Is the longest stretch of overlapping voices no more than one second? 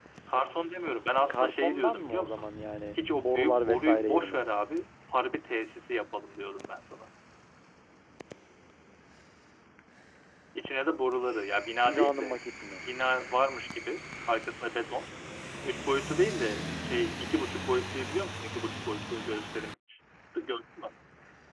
No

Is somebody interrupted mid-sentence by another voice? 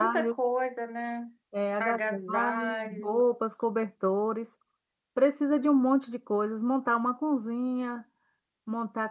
Yes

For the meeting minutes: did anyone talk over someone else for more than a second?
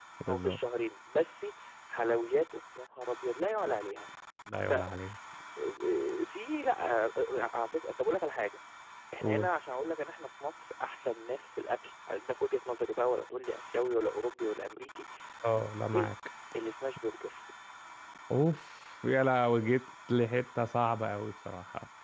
No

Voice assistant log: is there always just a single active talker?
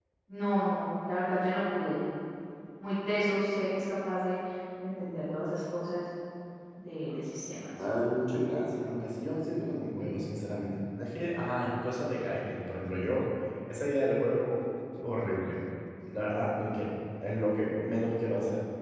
Yes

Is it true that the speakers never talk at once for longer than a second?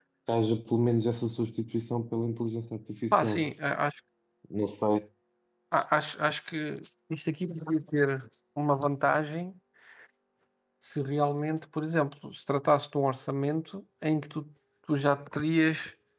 Yes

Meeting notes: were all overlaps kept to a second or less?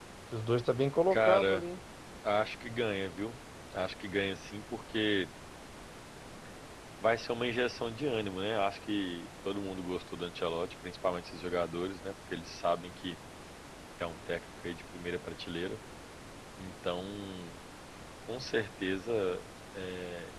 Yes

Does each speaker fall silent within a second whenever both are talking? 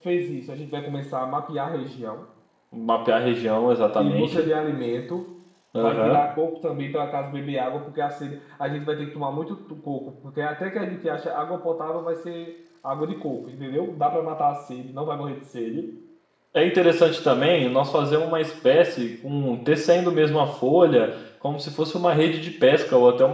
Yes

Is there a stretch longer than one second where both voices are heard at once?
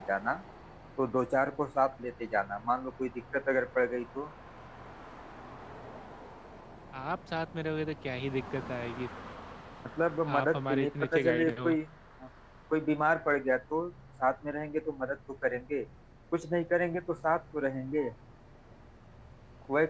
Yes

